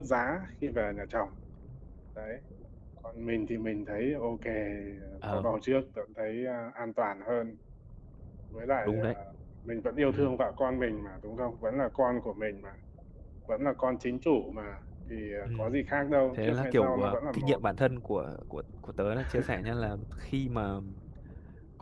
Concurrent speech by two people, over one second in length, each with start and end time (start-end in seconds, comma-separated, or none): 16.4-17.6